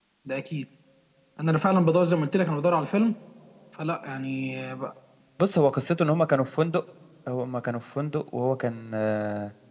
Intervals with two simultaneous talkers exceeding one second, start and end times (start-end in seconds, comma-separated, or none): none